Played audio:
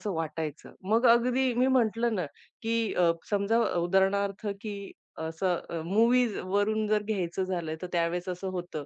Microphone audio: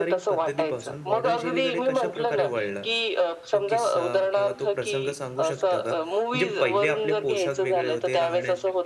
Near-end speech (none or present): present